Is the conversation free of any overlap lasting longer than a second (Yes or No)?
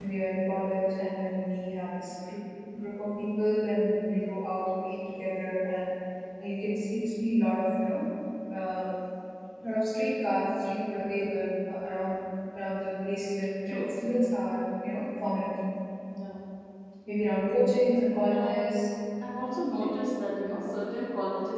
Yes